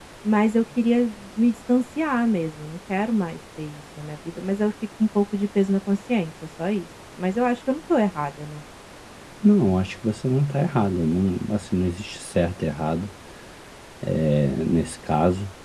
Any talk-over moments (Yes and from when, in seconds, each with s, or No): No